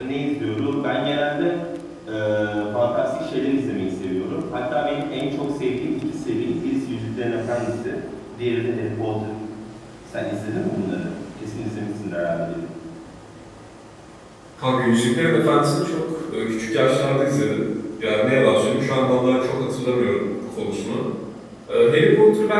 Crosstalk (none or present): none